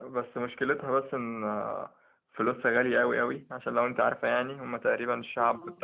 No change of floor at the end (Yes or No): Yes